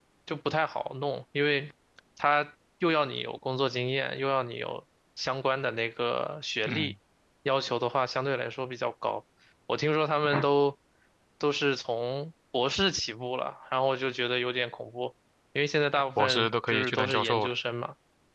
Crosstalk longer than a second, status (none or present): present